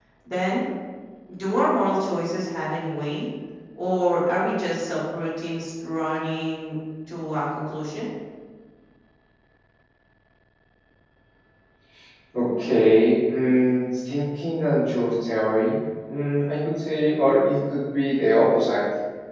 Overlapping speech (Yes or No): No